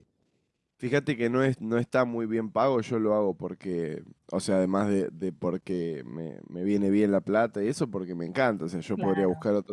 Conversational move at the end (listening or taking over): listening